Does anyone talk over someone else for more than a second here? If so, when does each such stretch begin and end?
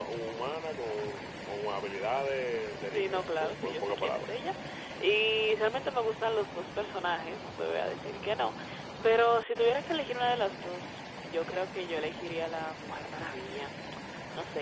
2.9-4.3

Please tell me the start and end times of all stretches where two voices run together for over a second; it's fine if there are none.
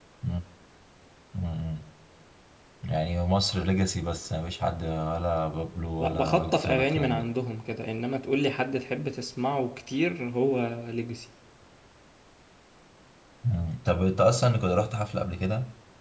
6.0-7.3

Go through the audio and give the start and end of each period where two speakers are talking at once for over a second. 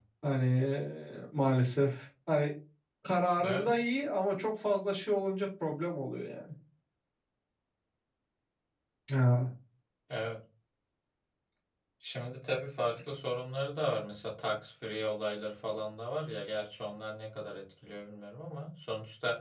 none

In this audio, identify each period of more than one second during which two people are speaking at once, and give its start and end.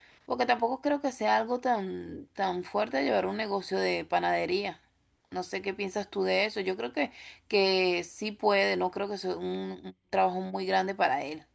none

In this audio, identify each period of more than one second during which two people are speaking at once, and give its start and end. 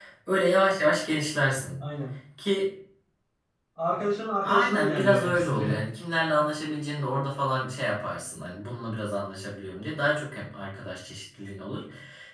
4.4-5.8

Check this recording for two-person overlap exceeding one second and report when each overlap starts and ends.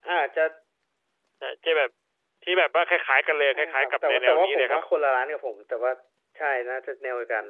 3.5-4.8

